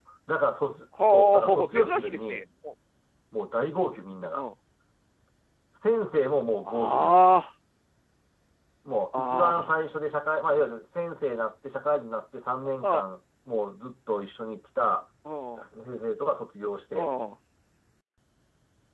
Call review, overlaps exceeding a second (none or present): present